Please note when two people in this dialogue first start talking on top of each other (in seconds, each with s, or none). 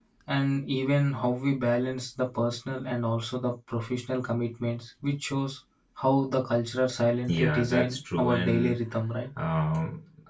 7.3 s